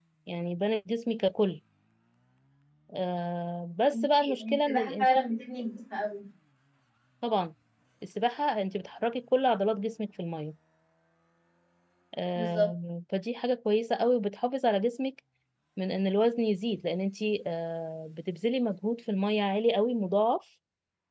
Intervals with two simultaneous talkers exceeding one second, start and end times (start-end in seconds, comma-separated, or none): 3.9-5.3